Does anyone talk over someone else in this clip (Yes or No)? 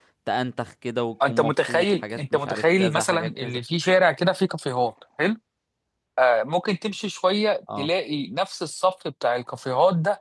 Yes